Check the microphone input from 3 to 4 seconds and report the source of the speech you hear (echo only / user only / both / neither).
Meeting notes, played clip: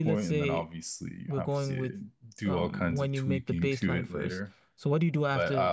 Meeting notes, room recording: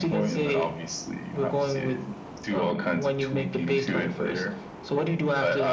echo only